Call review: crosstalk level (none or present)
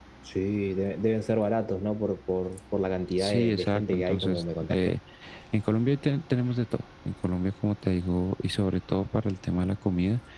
present